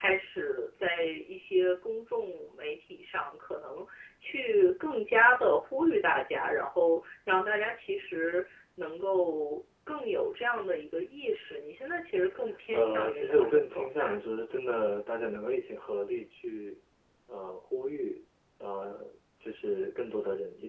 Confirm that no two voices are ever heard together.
No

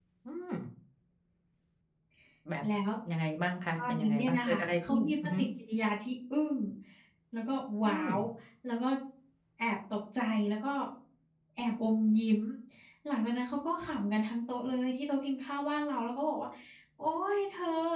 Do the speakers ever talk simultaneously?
Yes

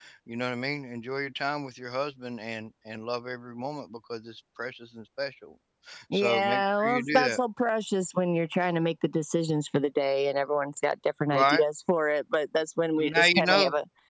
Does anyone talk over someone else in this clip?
Yes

